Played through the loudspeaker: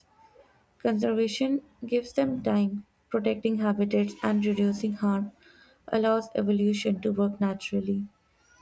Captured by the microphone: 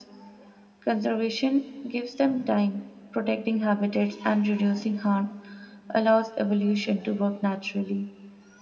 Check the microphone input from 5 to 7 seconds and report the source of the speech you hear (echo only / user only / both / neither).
echo only